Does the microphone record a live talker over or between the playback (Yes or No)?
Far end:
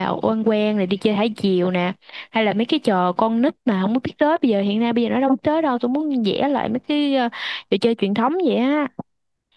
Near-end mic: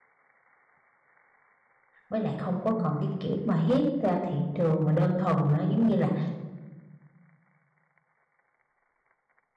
Yes